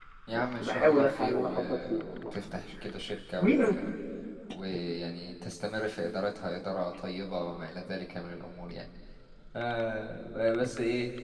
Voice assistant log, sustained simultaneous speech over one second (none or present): present